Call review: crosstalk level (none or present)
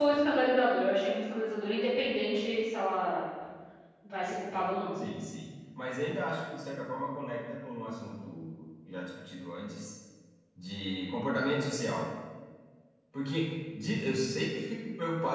none